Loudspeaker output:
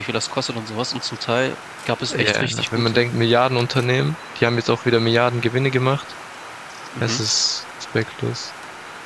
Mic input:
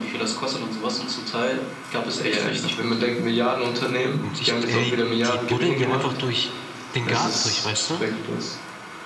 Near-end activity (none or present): present